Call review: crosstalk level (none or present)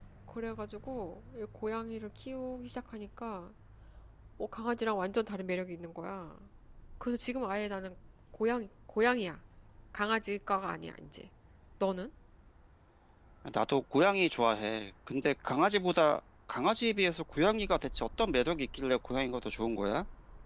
none